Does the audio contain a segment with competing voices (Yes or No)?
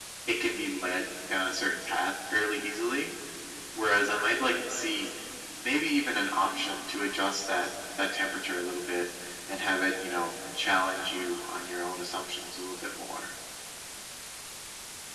No